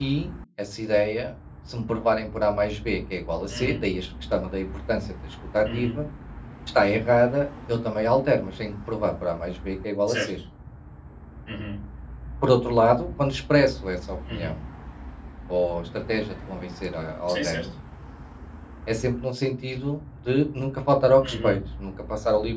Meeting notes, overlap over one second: none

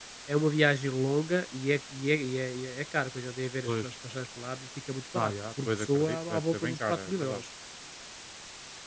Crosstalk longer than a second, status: present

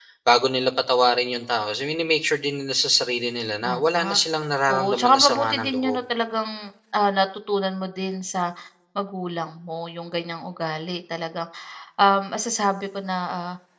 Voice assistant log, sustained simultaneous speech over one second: present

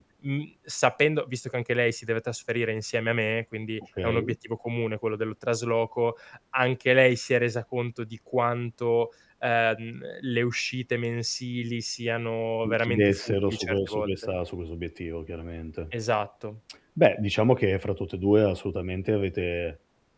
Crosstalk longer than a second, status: present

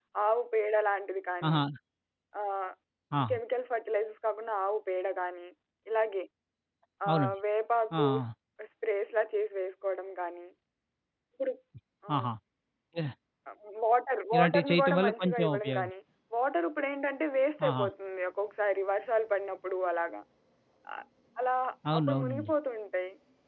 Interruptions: present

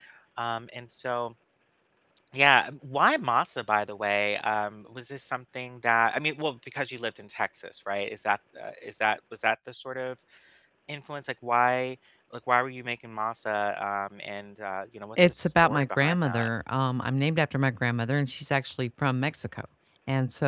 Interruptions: present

